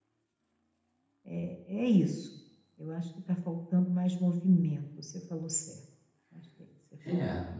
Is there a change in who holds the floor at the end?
Yes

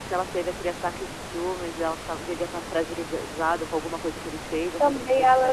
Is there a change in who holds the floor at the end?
Yes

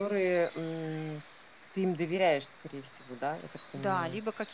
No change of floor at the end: No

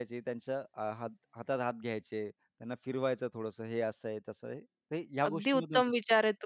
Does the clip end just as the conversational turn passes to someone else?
Yes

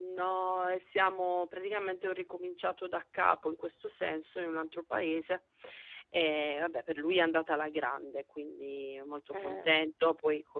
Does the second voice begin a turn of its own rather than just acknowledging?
No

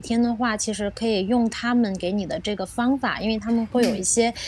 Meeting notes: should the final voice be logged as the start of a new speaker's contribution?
No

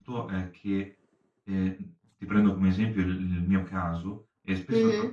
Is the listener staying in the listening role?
Yes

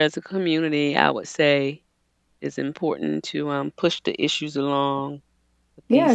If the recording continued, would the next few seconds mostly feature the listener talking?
Yes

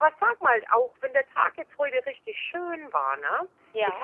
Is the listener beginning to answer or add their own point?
No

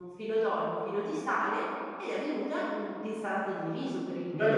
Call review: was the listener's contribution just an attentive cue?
No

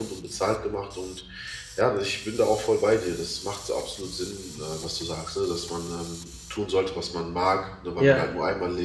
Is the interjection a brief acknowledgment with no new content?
Yes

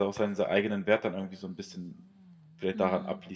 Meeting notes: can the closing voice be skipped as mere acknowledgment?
No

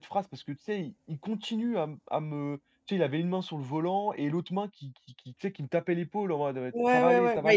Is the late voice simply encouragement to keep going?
No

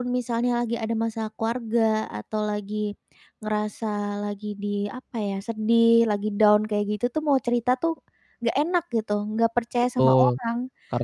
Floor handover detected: Yes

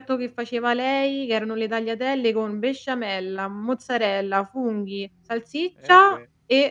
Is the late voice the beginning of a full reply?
No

